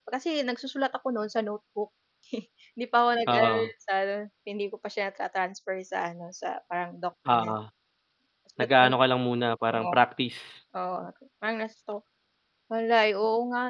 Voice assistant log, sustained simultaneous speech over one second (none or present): none